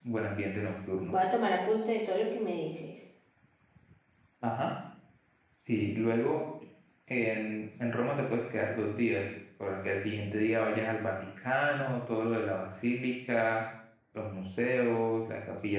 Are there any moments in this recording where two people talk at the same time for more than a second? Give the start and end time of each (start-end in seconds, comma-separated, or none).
none